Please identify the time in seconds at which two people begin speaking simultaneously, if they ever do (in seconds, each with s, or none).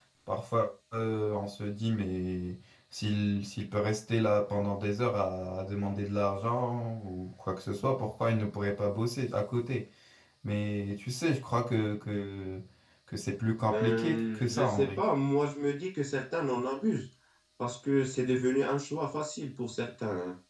13.7 s